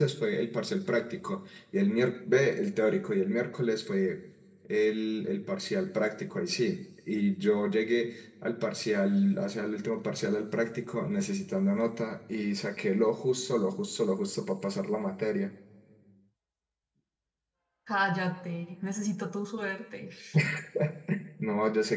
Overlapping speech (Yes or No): No